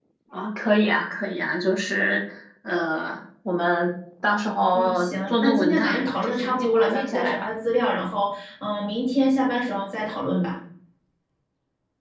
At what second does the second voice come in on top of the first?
4.7 s

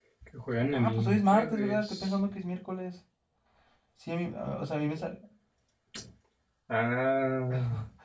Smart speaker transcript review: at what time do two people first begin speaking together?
0.7 s

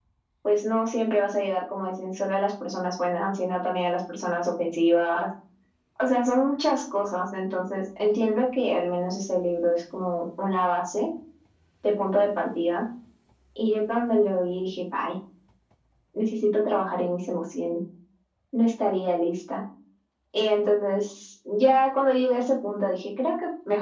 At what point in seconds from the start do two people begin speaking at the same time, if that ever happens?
none

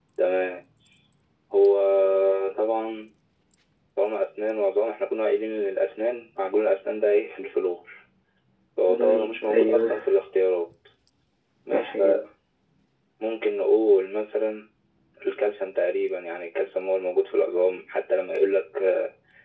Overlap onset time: 8.9 s

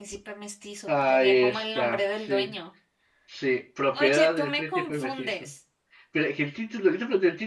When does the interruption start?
0.9 s

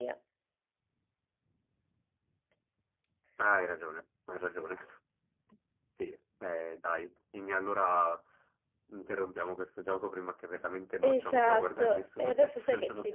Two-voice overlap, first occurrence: 11.0 s

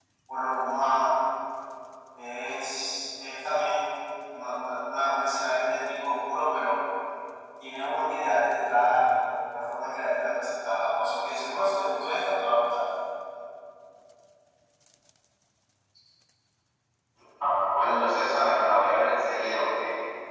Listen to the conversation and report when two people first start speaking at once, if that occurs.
none

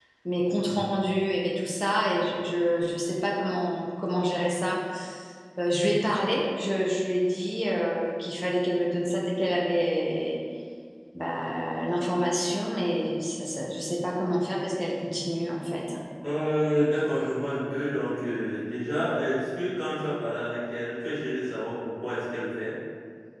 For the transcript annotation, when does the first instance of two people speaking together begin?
none

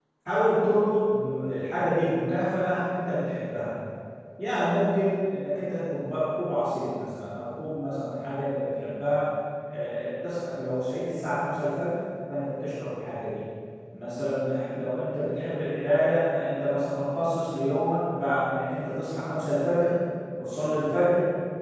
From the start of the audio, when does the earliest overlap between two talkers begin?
none

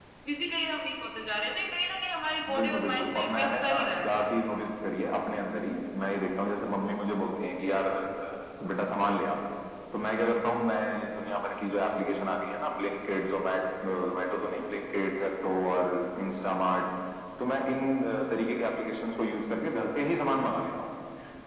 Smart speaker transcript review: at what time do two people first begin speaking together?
2.5 s

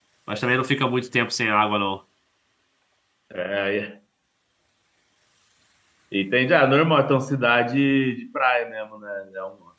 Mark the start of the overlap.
none

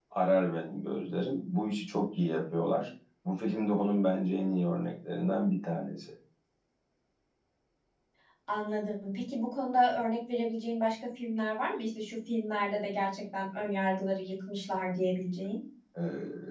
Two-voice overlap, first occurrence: none

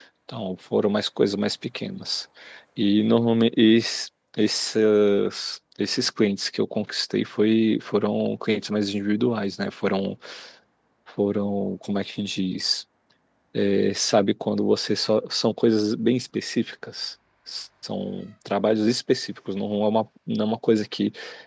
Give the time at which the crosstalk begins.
none

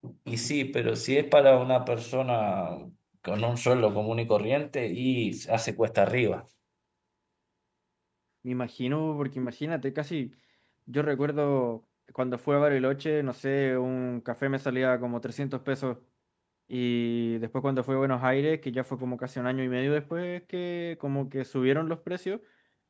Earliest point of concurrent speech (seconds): none

